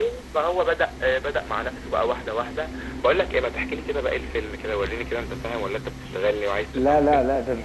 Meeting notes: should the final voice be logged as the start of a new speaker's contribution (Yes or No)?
Yes